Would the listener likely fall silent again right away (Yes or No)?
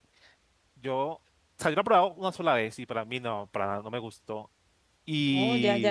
No